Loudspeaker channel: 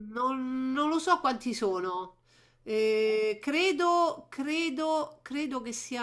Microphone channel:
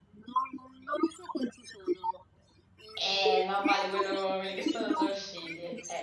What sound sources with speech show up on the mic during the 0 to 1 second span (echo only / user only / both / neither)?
echo only